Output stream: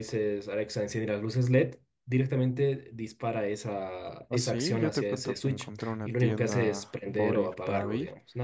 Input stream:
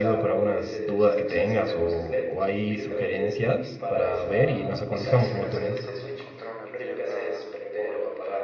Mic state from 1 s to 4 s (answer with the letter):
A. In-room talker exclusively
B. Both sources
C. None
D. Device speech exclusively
B